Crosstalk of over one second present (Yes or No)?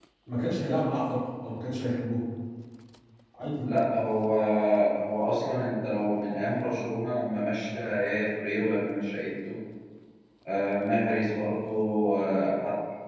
No